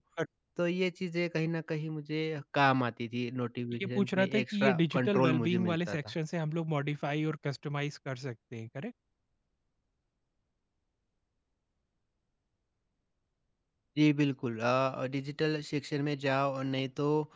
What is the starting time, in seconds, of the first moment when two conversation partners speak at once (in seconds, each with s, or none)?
3.7 s